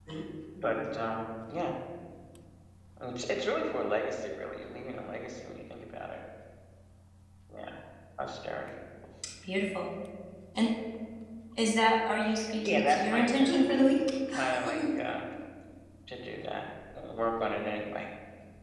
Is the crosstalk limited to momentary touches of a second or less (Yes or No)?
No